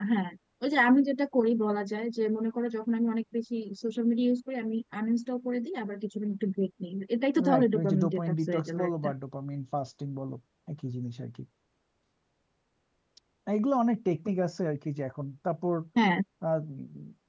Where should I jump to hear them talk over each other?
7 s

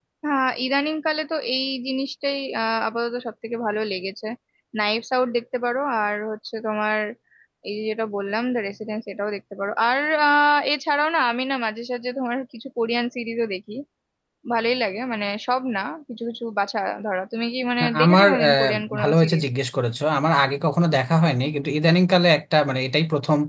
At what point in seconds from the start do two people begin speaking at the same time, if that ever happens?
18 s

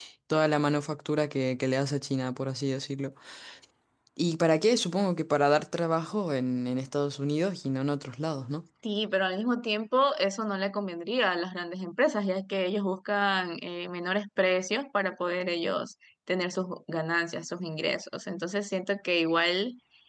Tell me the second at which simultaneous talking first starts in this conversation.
none

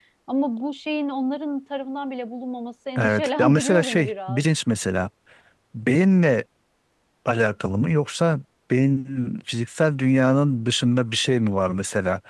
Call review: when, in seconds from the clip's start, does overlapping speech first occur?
3 s

